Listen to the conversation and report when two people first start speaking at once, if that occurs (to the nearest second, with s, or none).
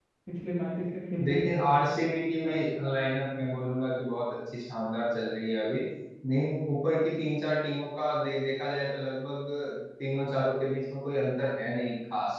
1 s